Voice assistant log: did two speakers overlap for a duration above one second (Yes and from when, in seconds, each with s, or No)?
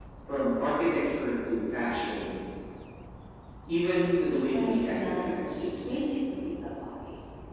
Yes, from 4.5 s